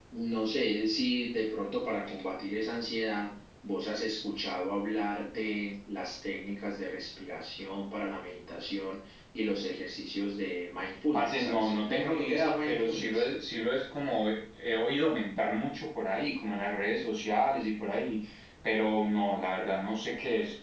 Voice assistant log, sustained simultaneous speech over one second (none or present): present